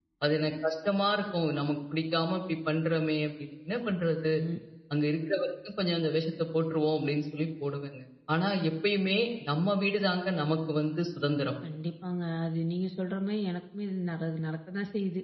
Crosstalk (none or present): none